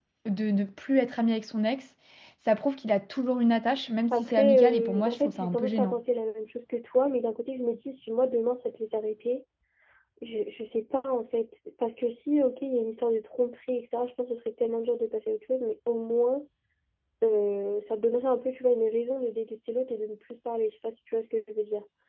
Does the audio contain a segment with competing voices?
Yes, from 4.1 s

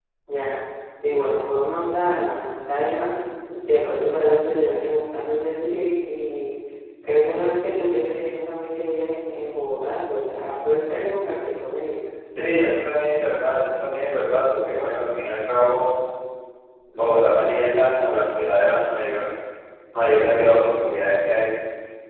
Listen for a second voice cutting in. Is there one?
No

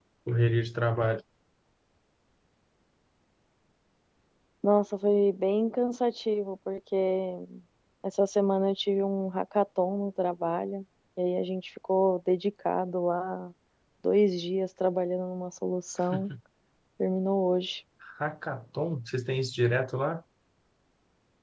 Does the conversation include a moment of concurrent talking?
No

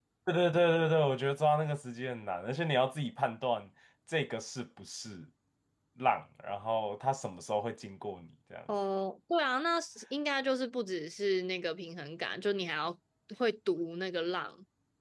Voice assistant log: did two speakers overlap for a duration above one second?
No

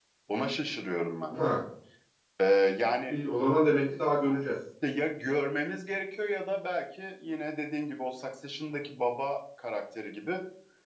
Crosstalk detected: No

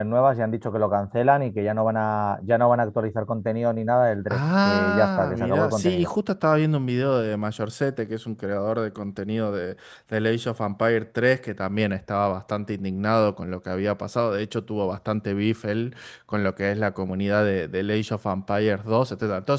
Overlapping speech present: Yes, from 4.3 s

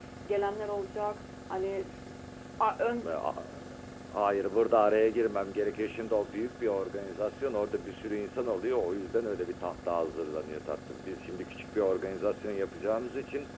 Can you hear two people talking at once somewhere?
No

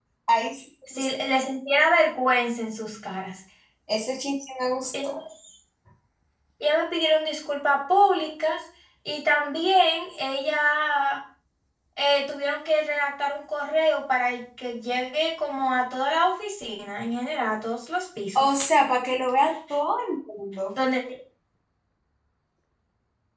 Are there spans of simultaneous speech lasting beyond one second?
No

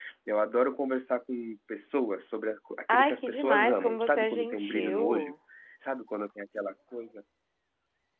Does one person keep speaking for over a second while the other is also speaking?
Yes, from 2.9 s

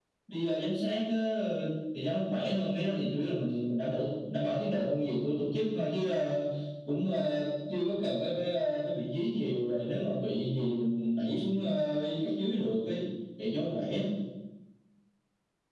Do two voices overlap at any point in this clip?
No

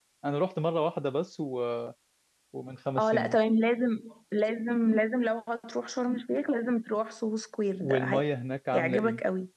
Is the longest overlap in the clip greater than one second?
No

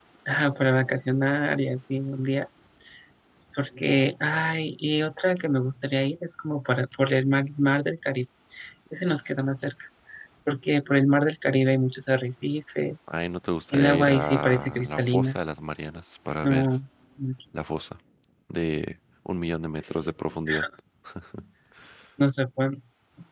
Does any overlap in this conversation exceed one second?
Yes, from 13.7 s

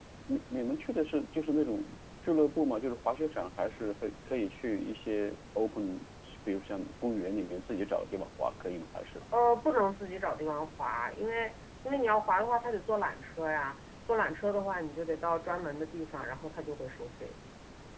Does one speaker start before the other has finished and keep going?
No

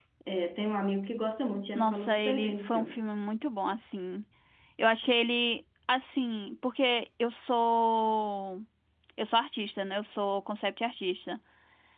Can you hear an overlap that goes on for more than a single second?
Yes, from 1.8 s

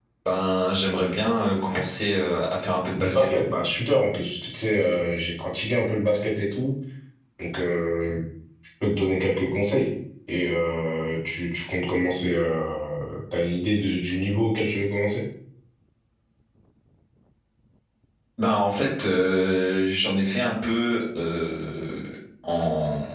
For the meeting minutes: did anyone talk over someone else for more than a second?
No

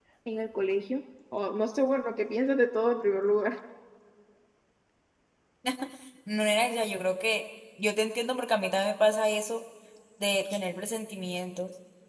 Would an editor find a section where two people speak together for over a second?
No

